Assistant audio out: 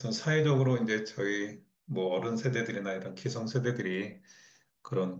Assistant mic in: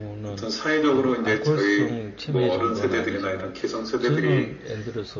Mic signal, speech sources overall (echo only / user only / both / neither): both